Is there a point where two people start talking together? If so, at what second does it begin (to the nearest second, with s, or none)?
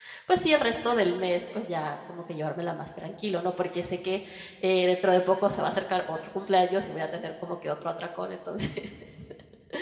none